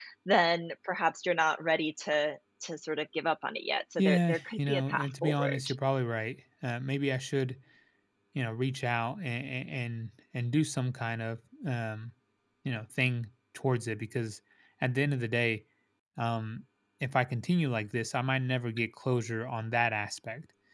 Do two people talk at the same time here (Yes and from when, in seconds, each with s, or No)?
Yes, from 4.0 s